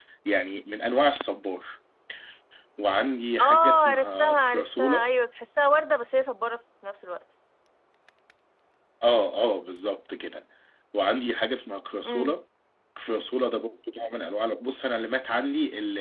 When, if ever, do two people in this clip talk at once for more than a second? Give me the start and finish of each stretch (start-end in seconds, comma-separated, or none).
3.4-5.0